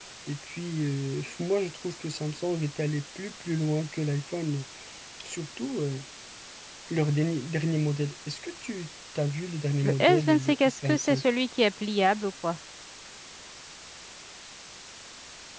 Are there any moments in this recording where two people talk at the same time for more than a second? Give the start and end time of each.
9.8-11.3

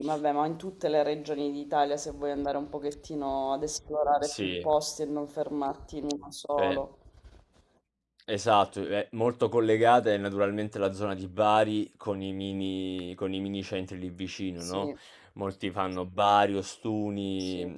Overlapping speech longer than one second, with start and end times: none

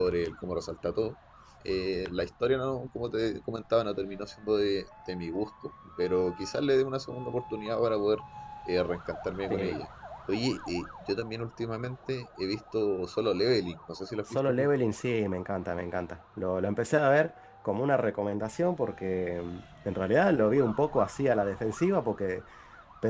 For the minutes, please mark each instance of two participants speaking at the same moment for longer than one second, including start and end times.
none

